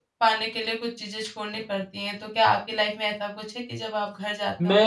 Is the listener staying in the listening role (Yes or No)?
No